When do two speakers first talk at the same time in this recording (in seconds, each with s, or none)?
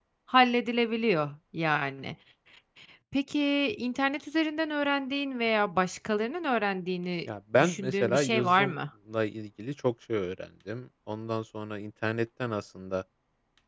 7.5 s